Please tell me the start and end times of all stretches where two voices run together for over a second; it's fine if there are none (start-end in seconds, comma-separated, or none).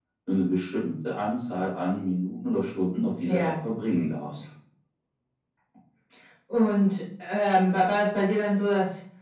none